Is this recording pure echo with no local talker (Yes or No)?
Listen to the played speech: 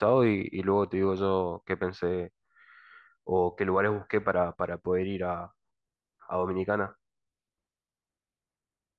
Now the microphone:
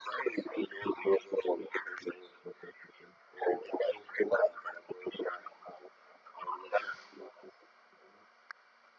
Yes